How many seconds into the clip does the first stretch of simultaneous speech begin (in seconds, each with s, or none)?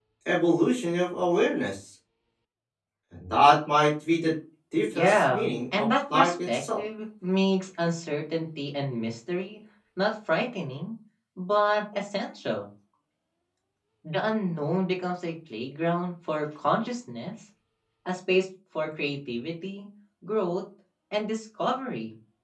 4.9 s